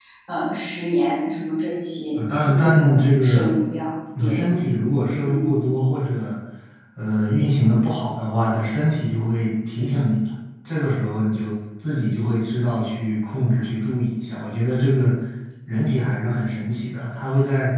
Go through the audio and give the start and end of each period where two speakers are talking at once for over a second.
2.3-3.5

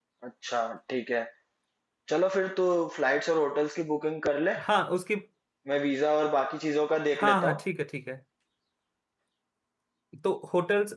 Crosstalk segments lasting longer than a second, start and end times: none

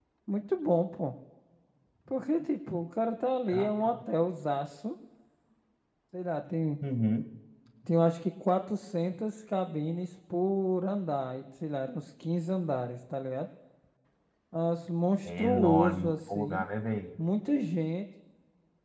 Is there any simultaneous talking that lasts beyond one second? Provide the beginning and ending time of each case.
15.2-16.6

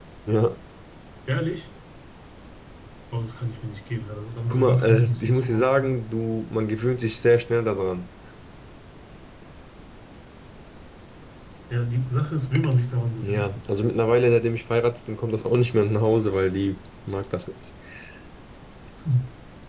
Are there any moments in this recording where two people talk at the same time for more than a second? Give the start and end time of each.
4.5-5.9

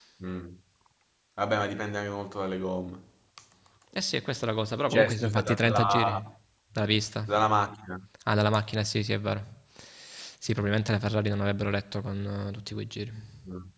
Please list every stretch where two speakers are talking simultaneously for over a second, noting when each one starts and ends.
4.9-6.1

